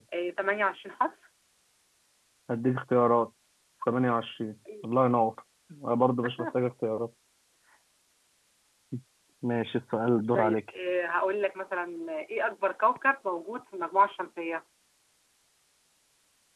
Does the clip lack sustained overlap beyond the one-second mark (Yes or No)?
Yes